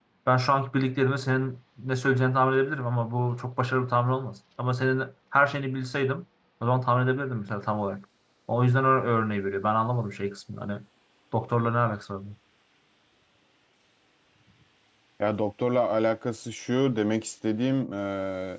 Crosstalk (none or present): none